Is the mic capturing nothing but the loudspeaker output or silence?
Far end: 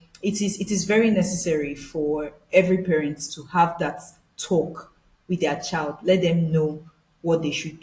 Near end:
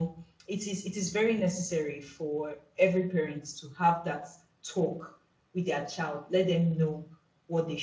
Yes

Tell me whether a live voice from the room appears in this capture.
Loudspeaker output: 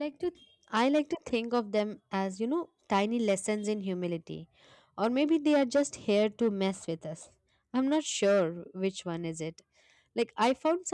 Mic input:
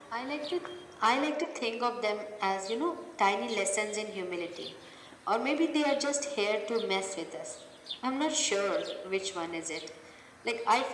No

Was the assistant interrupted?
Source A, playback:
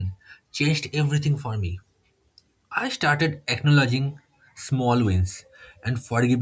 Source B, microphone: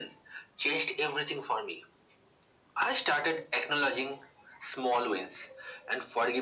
No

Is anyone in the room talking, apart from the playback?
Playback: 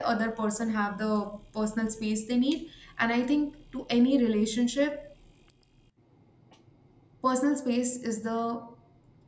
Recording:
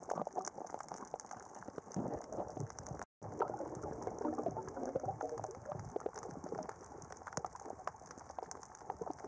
No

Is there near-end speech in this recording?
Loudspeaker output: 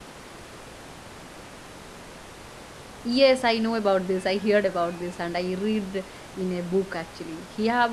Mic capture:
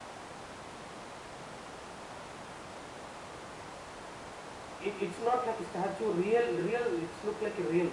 Yes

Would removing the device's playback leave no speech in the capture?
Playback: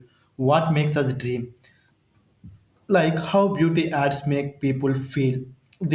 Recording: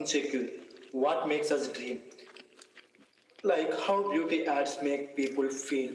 Yes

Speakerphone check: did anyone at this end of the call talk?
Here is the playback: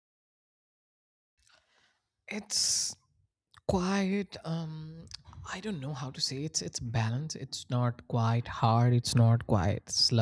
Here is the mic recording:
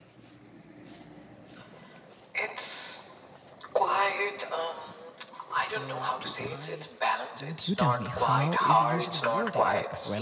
Yes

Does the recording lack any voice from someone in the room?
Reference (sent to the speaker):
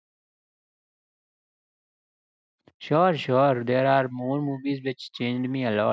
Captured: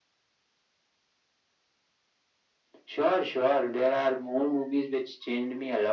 Yes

